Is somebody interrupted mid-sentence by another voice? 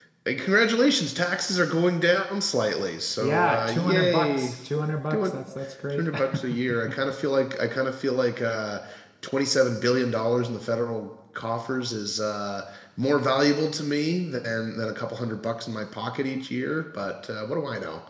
Yes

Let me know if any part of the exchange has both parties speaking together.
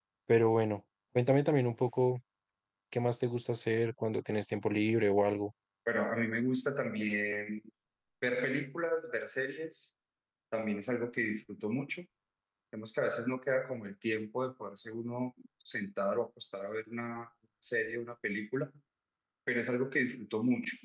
No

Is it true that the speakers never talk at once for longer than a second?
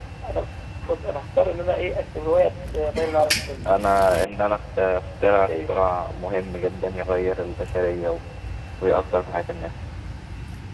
Yes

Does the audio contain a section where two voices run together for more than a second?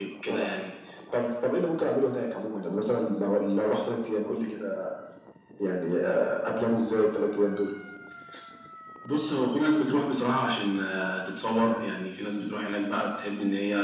No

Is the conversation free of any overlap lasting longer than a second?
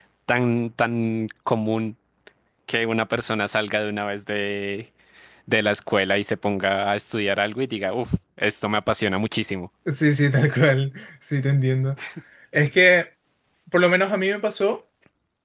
Yes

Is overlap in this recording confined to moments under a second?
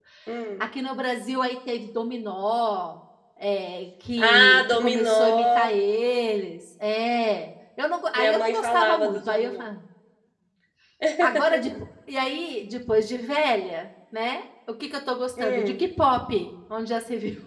No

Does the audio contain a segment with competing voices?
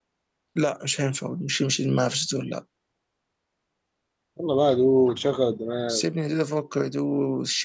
No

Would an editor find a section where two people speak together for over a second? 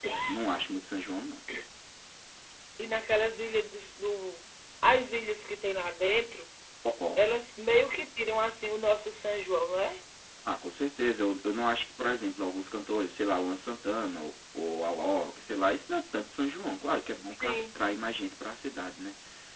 No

